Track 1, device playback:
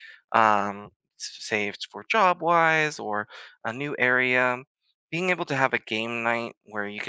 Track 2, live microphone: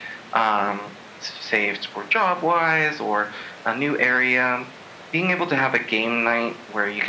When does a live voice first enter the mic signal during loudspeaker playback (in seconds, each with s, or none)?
none